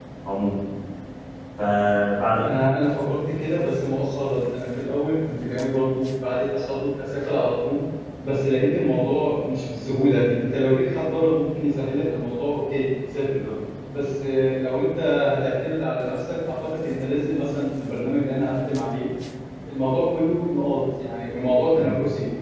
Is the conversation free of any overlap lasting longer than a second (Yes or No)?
Yes